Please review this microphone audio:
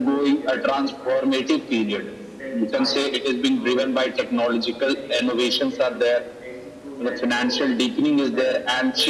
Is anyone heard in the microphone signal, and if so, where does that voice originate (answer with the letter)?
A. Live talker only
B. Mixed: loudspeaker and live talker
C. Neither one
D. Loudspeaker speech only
B